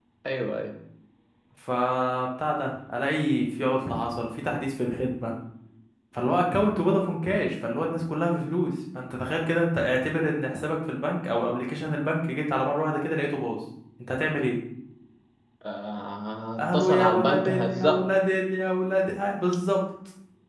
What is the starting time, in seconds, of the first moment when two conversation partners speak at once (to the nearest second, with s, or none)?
17 s